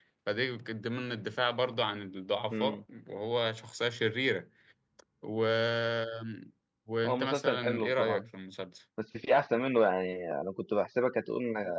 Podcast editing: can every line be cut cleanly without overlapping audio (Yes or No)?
No